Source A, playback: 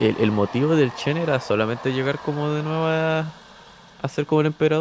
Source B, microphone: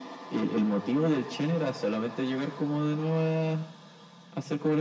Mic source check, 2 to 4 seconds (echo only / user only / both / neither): echo only